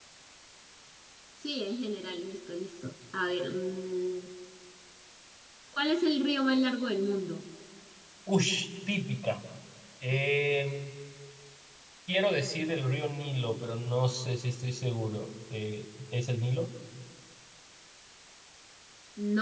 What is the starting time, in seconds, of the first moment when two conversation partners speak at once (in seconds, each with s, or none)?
none